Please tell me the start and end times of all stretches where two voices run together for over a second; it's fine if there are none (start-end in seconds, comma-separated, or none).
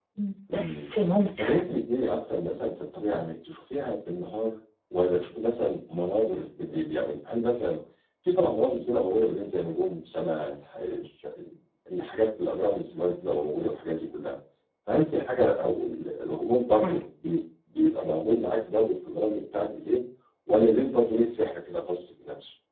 none